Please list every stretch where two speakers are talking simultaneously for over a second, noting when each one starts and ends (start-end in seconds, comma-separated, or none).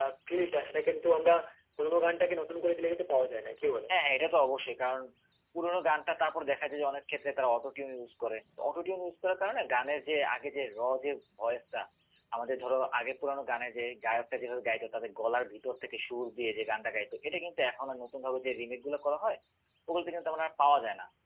none